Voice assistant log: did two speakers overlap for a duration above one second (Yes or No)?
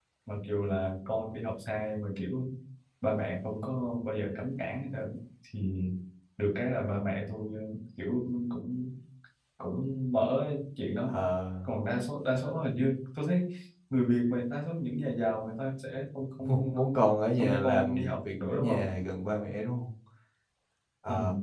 Yes